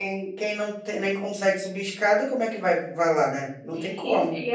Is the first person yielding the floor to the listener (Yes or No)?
Yes